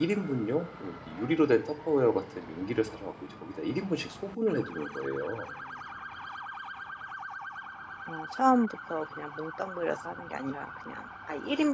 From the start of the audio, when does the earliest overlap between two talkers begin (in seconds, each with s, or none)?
none